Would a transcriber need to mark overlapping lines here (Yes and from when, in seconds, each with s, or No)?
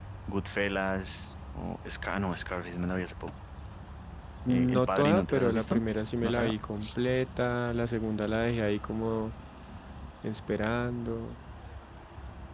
Yes, from 4.5 s